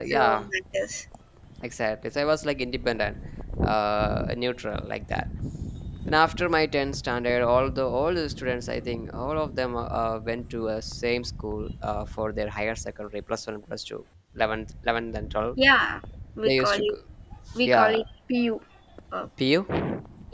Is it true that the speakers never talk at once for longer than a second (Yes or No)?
Yes